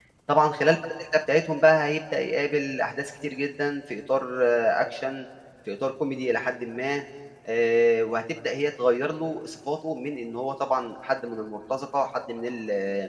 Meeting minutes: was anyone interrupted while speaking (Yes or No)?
No